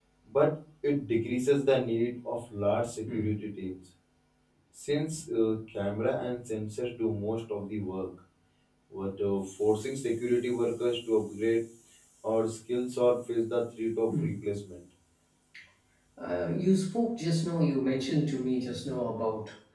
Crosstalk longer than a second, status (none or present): none